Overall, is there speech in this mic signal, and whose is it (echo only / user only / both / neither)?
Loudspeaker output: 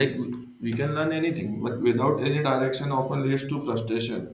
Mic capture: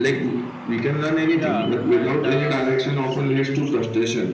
both